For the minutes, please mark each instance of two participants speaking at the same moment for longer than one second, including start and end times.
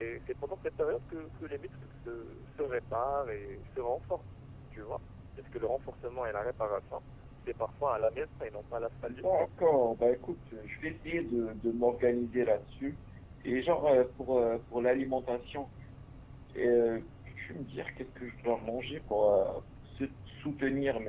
none

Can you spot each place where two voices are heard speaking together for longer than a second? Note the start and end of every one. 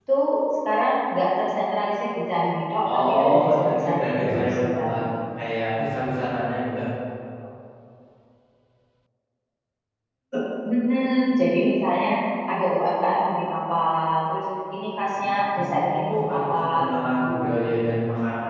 2.9-5.0, 15.2-17.5

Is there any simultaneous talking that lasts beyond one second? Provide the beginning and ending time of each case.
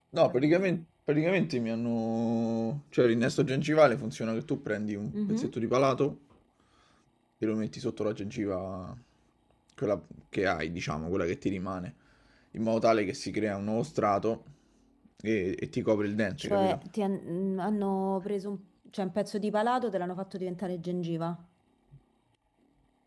none

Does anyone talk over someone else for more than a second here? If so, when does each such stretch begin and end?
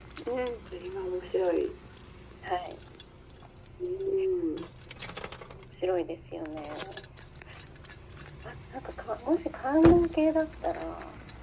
none

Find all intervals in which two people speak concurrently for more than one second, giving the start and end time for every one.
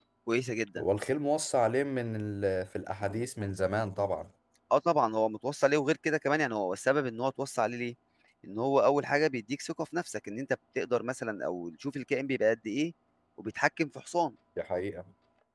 none

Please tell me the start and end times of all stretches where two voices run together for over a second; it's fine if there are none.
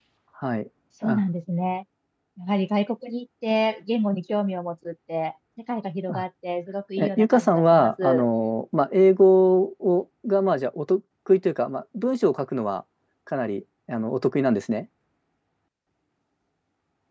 7.0-8.3

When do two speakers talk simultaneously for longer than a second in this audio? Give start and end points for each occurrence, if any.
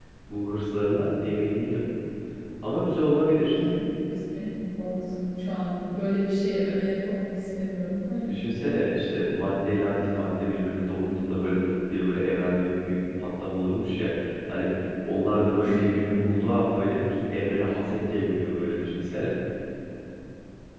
none

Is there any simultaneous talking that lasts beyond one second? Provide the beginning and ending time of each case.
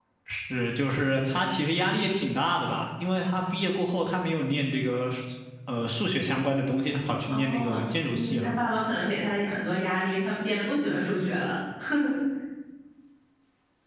7.3-8.5

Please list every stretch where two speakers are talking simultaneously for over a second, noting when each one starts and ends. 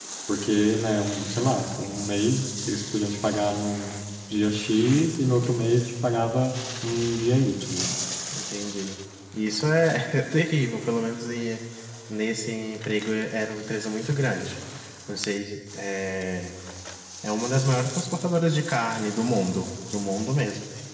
none

